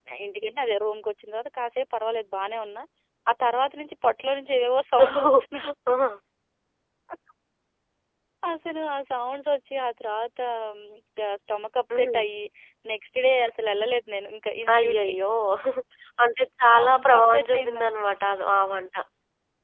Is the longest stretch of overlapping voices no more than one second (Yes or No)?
No